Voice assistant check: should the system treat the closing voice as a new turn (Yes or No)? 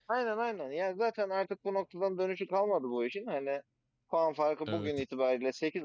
No